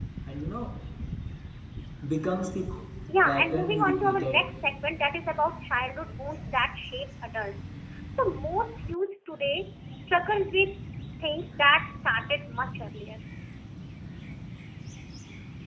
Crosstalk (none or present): present